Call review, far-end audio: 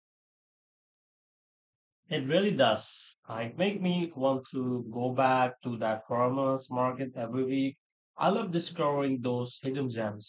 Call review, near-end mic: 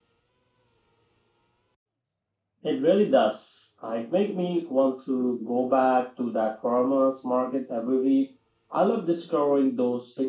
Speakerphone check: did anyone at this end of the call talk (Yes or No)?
No